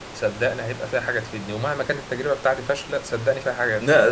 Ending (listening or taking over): taking over